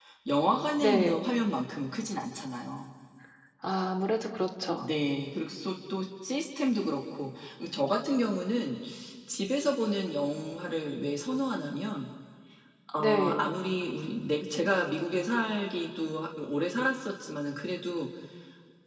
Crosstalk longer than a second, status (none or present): none